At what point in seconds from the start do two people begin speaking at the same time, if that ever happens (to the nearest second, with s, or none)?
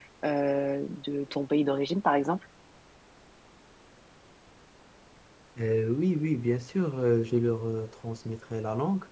none